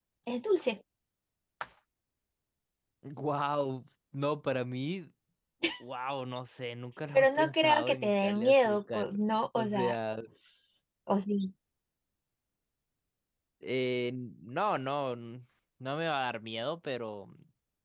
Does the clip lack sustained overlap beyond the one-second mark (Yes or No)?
No